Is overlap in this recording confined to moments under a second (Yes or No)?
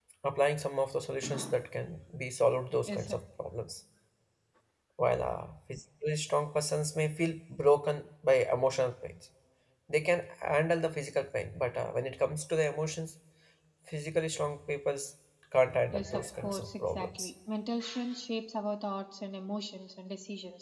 No